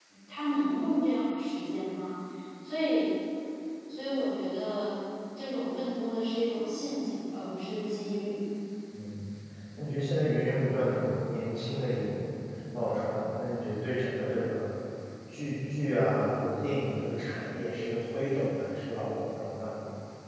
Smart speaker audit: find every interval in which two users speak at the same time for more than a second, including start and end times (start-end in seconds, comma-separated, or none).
none